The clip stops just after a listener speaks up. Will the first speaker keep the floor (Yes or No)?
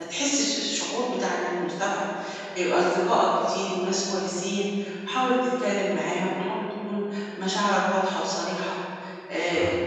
Yes